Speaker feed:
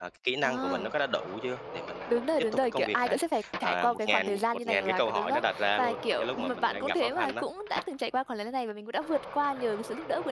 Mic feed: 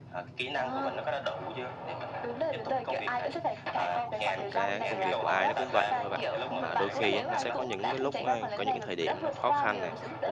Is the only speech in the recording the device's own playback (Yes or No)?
No